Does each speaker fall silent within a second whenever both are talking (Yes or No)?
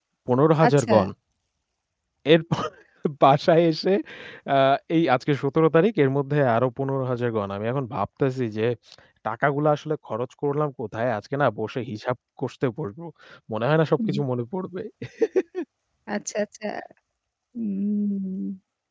Yes